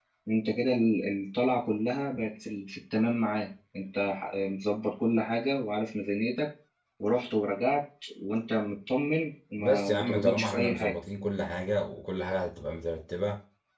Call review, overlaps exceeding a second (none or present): present